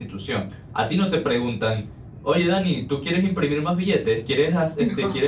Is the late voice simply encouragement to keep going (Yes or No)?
Yes